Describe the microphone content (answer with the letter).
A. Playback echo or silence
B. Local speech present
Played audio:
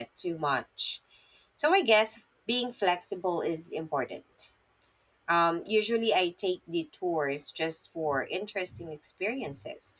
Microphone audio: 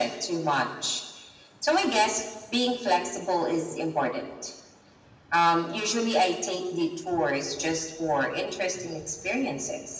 A